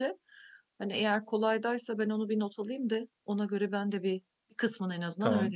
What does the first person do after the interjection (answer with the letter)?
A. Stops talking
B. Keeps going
A